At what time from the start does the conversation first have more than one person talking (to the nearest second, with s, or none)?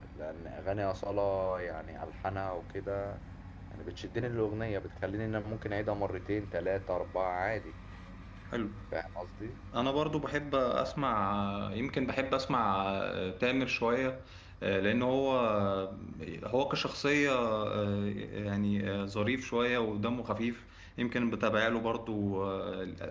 none